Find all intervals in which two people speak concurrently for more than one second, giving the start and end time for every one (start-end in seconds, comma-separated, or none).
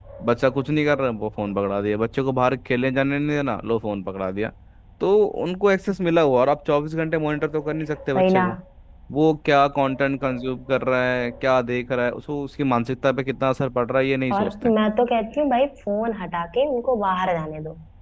none